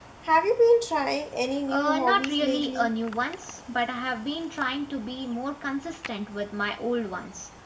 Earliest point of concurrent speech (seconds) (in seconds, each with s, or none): 1.7 s